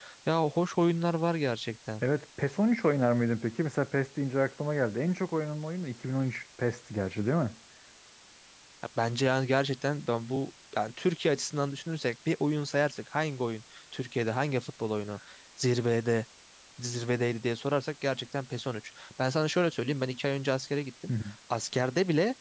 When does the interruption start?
none

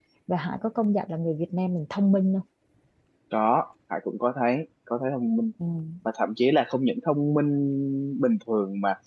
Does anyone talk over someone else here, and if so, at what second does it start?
none

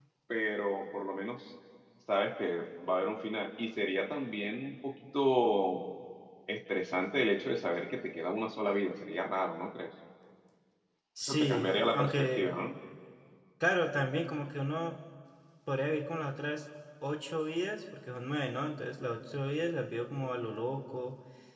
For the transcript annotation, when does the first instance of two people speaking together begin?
11.2 s

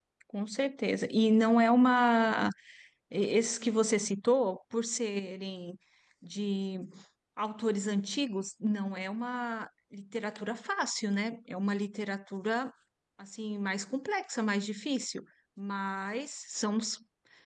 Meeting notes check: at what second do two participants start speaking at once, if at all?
none

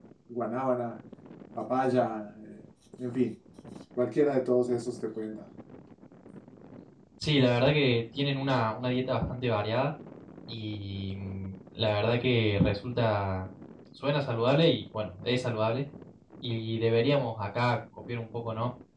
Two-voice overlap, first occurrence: none

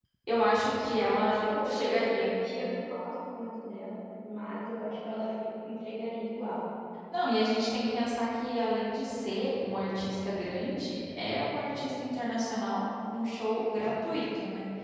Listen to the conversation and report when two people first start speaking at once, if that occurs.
0.8 s

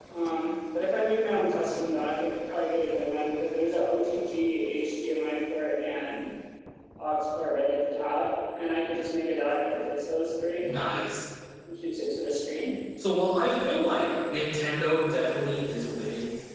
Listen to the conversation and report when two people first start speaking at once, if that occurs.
none

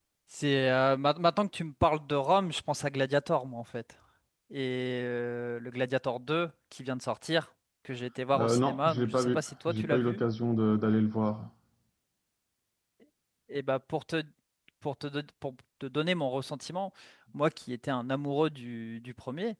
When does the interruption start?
8.3 s

